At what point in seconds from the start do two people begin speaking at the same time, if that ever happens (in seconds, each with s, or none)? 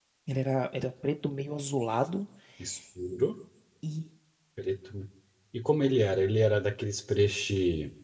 none